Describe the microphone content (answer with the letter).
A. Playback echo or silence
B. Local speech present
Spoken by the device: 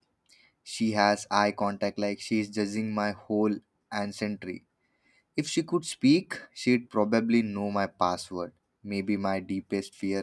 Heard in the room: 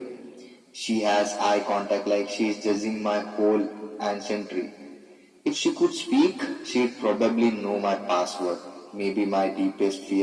A